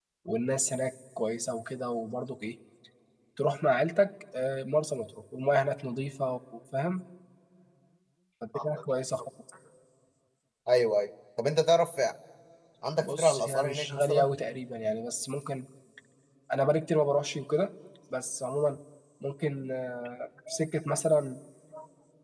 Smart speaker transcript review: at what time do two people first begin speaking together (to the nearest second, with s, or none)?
13 s